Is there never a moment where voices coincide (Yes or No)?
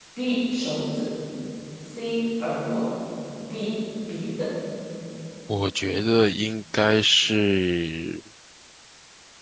Yes